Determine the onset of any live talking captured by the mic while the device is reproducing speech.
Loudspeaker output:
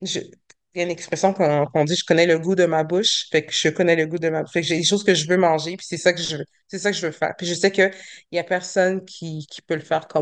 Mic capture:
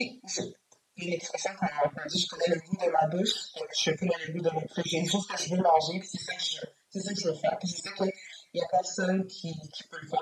none

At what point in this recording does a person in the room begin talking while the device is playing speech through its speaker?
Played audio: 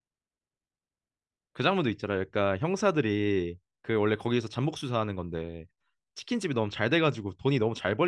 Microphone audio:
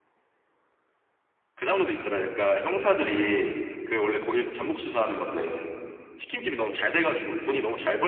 none

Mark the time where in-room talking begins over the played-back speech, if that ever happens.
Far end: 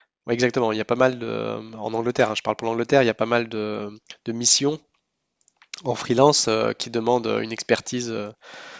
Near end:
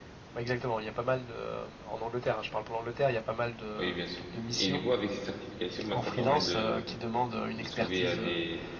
4 s

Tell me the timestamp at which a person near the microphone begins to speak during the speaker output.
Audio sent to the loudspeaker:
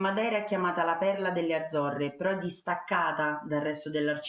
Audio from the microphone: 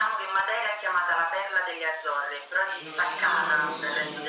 3 s

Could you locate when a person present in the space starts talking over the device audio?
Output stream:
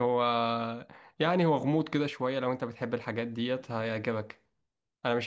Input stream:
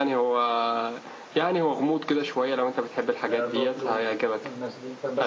3 s

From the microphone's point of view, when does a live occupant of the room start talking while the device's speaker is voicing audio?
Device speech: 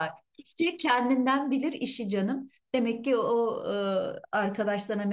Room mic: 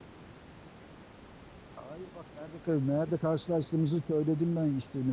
2 s

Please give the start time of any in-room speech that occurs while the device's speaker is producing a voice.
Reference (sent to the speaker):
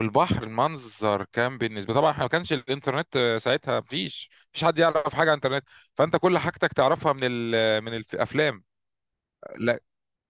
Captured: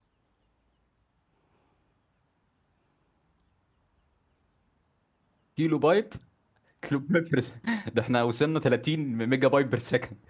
6 s

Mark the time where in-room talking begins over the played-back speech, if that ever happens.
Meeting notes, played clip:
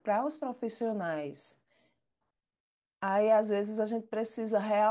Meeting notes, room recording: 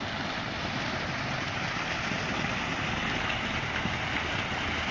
none

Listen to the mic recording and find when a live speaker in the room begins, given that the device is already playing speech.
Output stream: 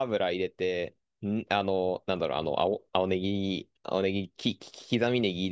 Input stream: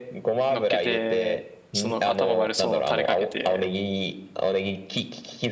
0 s

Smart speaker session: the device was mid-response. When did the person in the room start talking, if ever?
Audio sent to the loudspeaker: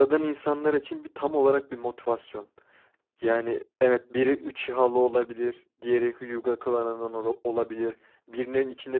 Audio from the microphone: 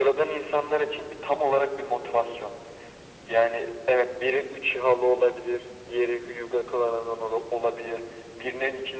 none

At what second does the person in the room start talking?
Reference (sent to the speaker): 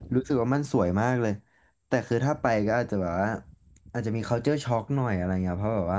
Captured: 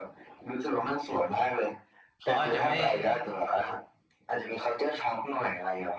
2 s

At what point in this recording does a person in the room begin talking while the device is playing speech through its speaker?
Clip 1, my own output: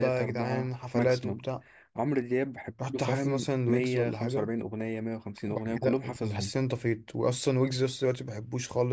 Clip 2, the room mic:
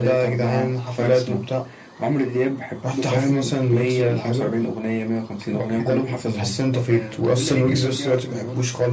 7 s

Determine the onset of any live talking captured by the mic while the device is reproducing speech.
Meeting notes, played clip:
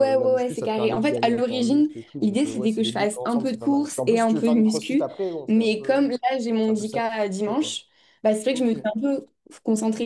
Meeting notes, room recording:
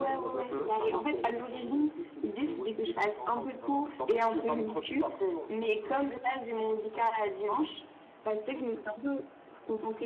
0 s

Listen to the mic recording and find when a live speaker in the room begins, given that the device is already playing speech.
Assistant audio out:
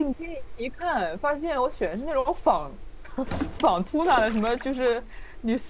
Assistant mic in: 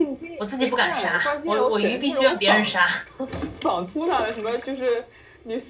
0 s

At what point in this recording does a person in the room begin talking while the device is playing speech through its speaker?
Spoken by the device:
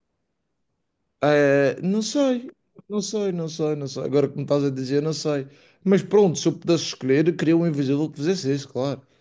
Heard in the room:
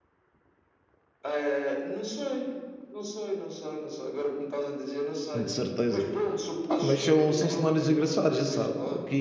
5 s

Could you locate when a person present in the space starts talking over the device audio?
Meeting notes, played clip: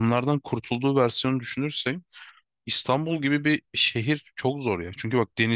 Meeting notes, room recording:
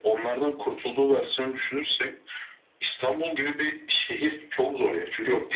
none

